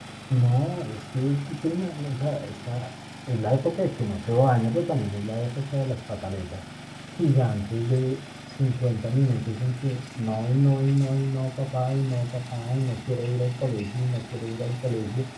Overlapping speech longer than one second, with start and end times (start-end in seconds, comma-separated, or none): none